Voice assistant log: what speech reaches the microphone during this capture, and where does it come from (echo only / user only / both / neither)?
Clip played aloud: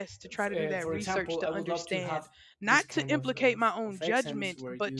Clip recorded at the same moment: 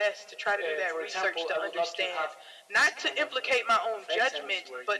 echo only